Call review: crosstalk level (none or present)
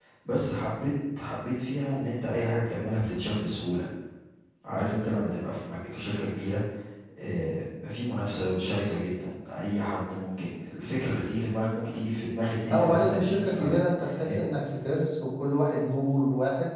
present